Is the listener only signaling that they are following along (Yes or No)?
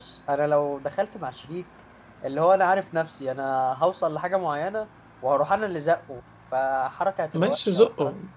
No